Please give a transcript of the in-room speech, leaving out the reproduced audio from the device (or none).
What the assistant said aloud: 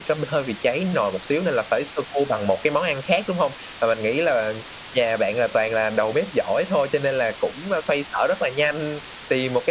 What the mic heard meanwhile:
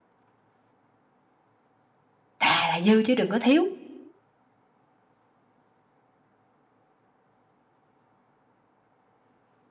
"Thà là dư chứ đừng có thiếu,